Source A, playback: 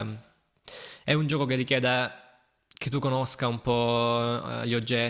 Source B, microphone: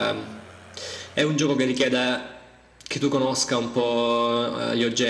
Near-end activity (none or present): none